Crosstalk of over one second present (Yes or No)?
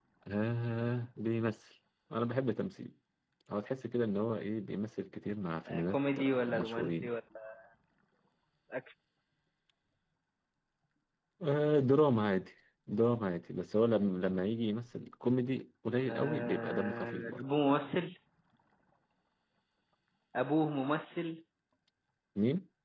Yes